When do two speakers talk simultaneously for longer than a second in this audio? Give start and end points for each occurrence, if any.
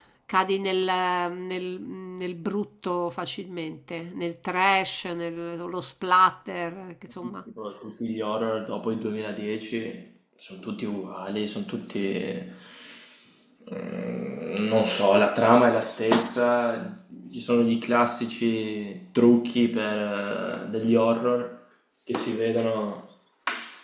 none

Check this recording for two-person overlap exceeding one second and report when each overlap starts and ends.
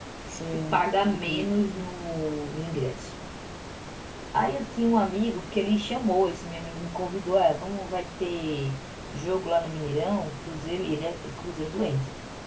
0.5-1.8

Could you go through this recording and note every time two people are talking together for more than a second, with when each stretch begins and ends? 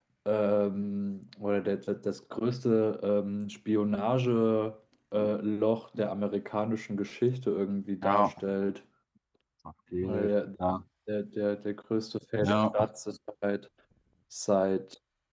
none

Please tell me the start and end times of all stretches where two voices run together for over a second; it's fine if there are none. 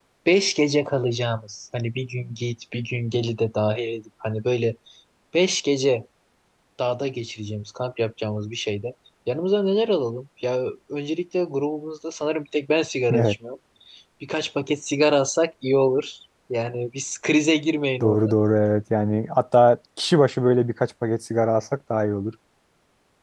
none

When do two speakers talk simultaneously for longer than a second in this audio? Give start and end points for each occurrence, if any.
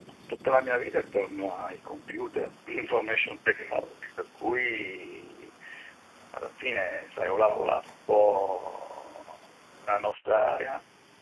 none

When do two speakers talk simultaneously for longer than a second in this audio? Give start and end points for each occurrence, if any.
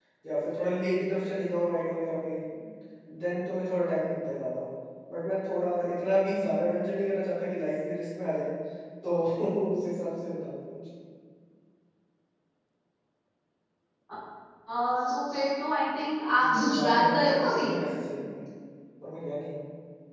16.4-17.7

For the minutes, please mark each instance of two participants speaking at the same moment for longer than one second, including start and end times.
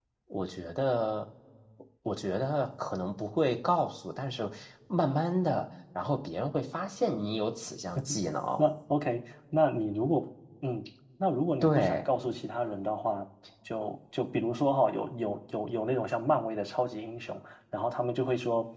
none

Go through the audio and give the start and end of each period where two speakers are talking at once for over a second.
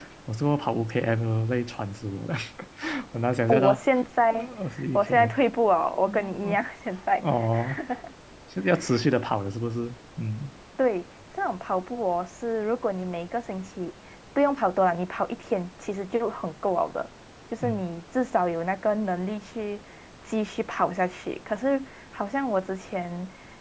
none

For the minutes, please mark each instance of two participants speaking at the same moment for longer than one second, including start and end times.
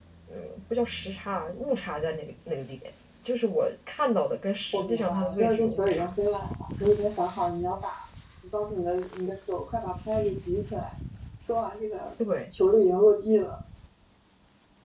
4.7-6.1

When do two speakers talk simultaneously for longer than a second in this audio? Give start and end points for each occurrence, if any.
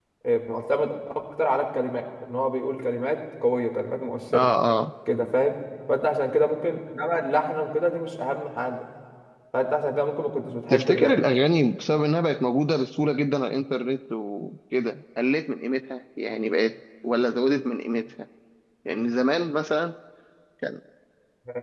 none

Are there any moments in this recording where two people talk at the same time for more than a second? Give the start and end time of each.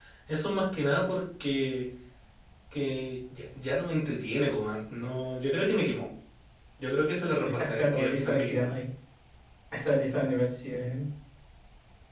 7.4-8.7

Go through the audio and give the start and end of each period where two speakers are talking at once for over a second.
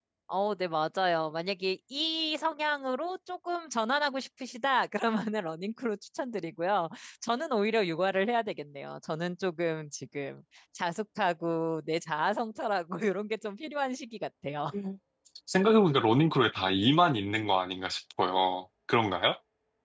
none

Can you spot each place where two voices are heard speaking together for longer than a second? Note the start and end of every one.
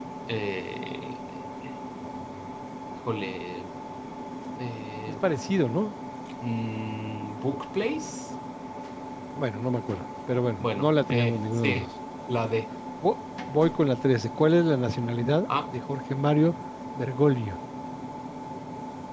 10.6-11.8

